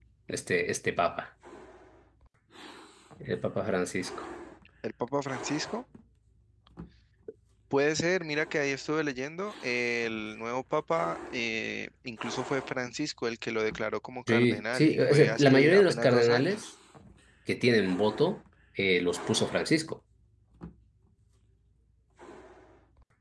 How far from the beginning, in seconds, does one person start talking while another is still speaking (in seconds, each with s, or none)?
14.3 s